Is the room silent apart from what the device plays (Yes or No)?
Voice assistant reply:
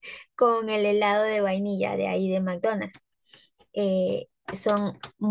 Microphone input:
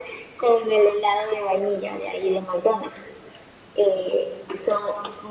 Yes